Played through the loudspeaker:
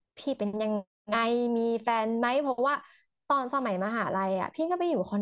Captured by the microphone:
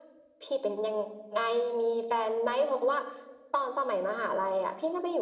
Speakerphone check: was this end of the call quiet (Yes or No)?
Yes